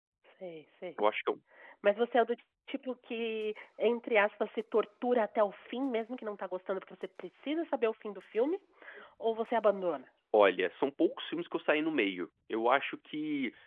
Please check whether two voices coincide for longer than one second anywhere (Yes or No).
No